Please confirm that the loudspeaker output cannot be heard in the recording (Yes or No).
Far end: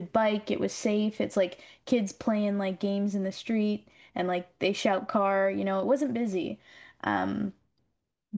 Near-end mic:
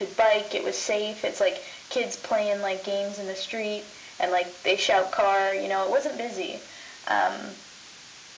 No